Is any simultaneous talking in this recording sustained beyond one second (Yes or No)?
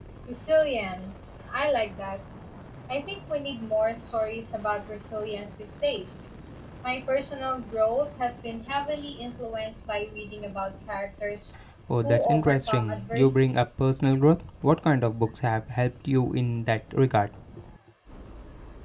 Yes